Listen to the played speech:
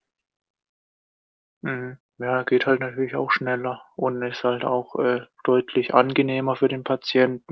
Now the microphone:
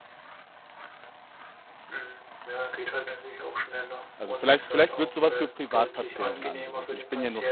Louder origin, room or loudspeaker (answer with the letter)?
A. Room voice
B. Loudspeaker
A